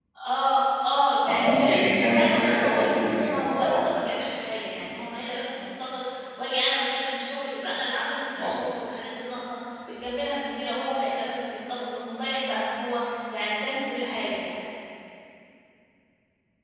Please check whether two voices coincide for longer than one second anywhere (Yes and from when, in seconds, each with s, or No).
Yes, from 1.3 s